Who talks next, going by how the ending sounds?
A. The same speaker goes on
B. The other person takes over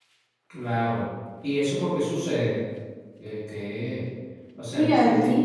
B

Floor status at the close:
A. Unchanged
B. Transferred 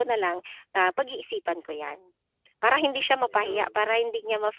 A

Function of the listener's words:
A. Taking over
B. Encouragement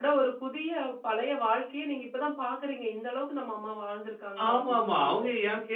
A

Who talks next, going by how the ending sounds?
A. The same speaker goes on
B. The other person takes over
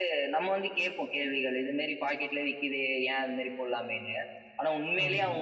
A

